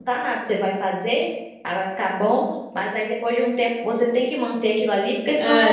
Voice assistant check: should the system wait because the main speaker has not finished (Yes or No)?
No